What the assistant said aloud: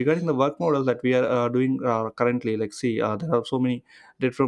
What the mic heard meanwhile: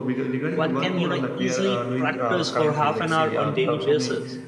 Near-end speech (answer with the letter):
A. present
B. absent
A